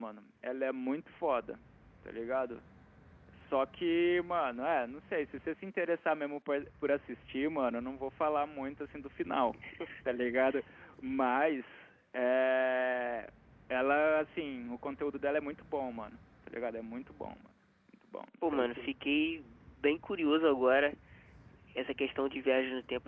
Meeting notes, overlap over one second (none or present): none